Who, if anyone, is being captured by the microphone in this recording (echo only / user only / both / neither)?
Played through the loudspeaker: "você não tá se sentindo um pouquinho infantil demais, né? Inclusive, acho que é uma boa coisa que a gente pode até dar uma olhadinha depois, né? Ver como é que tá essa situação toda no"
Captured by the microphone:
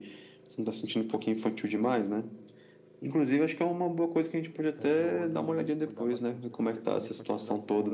both